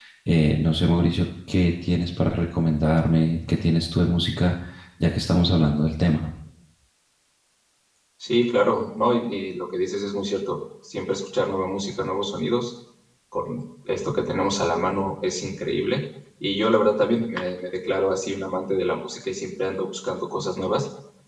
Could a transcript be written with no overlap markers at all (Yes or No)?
Yes